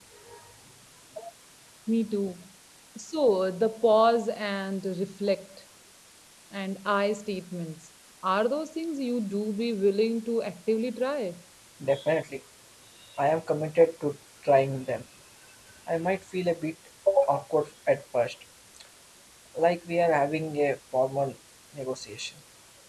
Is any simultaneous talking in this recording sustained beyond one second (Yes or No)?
No